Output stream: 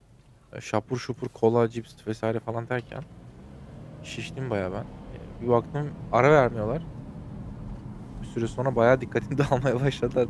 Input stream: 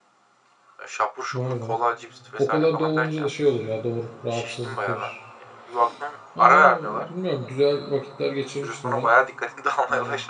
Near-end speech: present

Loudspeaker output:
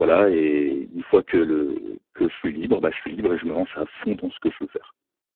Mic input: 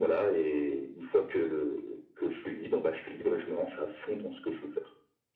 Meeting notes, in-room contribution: none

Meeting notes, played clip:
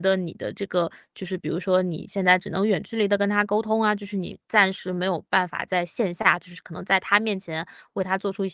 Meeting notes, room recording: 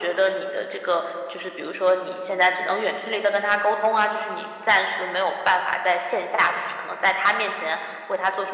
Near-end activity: none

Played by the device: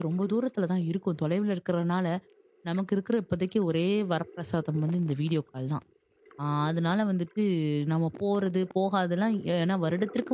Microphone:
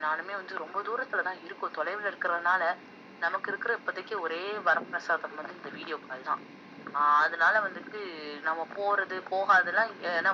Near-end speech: none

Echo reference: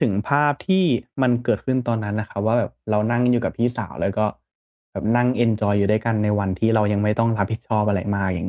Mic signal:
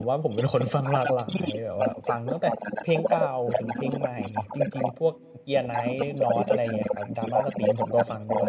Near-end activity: present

